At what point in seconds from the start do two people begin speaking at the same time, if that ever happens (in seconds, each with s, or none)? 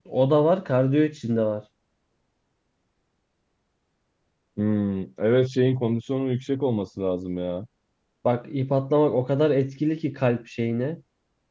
none